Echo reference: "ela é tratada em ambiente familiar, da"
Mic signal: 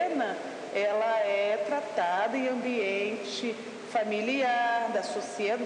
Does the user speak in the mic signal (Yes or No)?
No